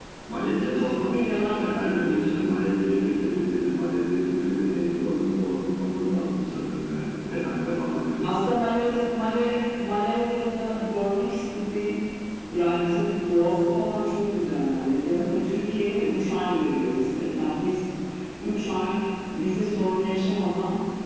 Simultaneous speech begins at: 1 s

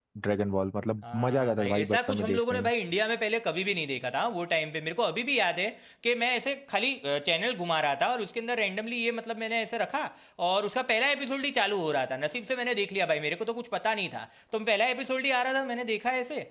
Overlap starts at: 1 s

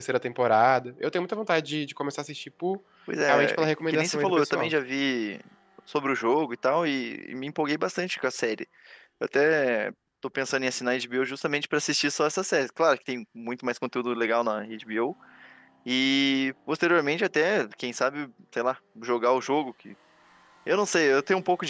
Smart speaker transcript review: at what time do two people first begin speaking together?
3 s

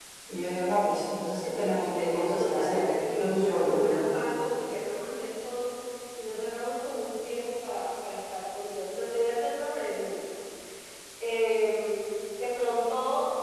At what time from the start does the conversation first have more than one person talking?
2 s

